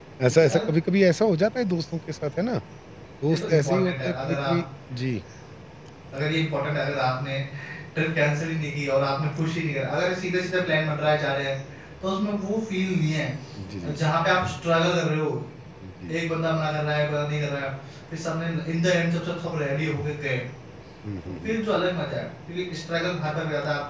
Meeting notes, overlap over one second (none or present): present